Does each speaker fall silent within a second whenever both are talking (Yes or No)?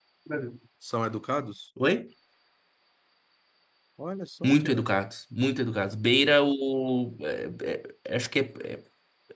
Yes